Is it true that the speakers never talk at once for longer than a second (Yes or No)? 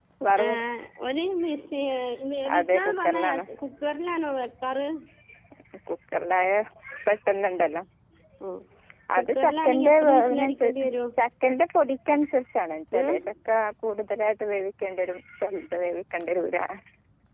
No